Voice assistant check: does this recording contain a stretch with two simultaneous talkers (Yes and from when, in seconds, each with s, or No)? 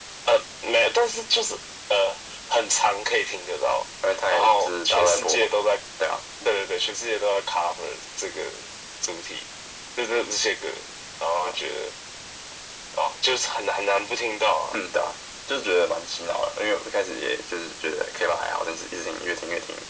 Yes, from 4.3 s